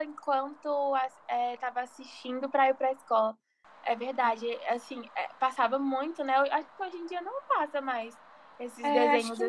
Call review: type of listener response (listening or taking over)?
taking over